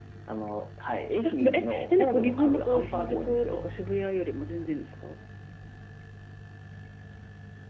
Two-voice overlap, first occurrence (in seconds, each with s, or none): 1.2 s